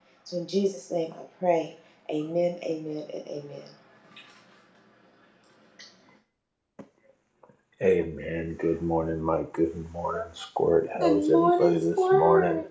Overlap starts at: 11.0 s

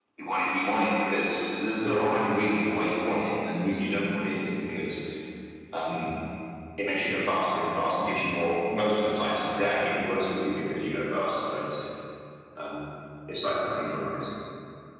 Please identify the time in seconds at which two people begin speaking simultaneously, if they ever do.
none

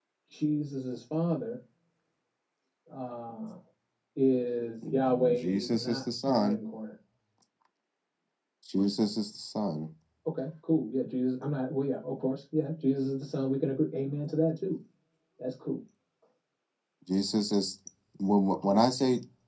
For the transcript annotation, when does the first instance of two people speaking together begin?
4.8 s

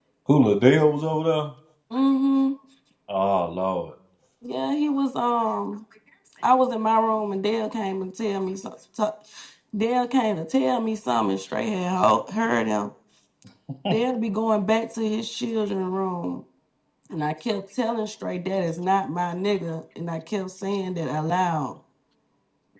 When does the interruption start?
none

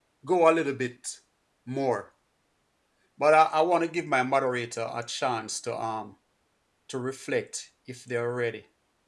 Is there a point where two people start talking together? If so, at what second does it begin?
none

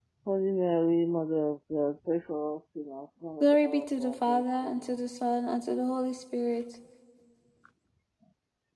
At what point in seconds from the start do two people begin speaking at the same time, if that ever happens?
3.4 s

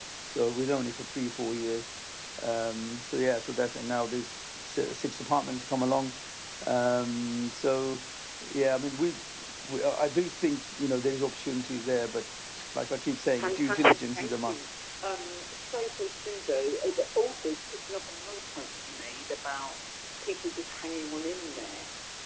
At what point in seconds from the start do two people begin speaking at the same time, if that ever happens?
13.4 s

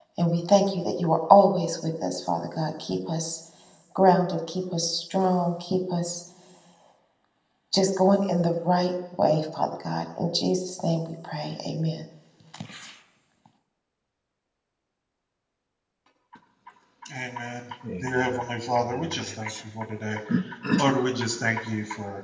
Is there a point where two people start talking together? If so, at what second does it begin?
18.0 s

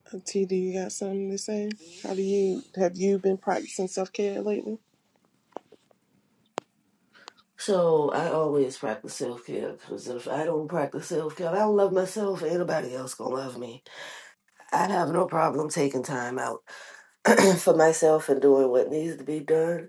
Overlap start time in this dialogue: none

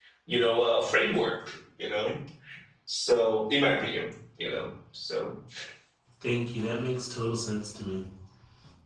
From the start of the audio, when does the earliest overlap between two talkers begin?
none

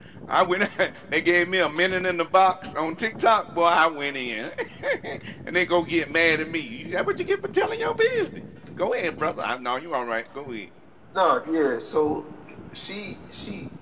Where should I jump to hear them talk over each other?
none

